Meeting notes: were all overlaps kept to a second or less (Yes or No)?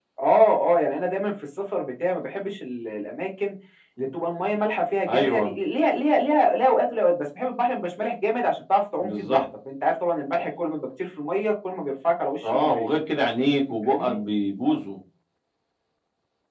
Yes